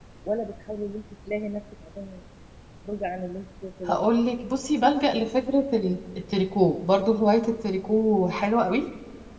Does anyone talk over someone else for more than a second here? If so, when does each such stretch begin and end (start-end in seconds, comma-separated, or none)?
none